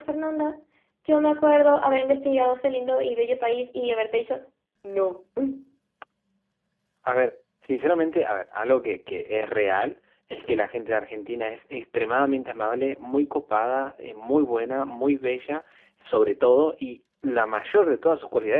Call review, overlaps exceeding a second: none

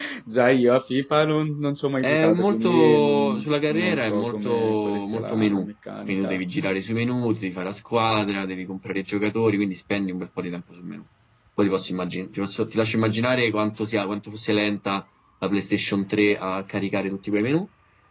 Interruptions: present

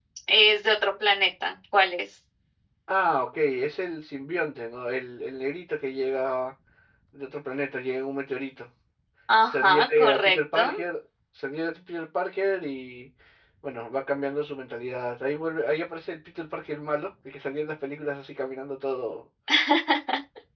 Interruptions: present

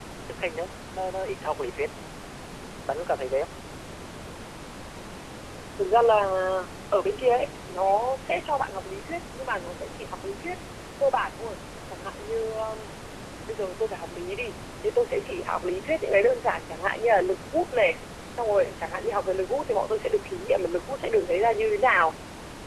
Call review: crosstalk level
none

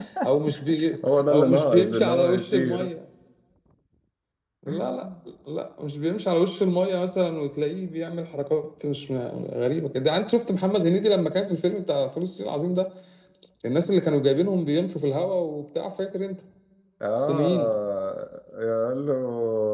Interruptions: present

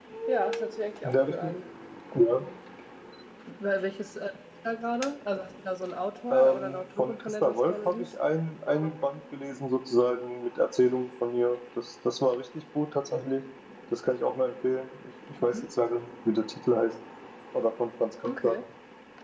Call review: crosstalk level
present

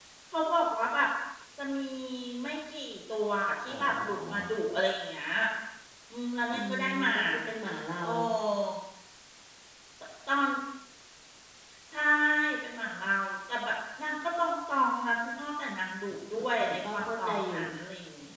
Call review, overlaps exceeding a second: present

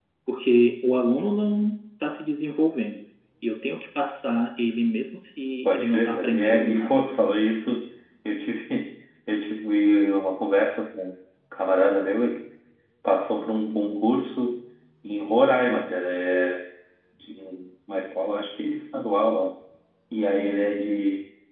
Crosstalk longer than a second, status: present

